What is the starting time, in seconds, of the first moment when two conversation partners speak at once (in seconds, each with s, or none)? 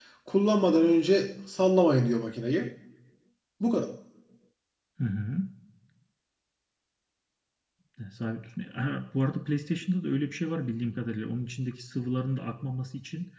none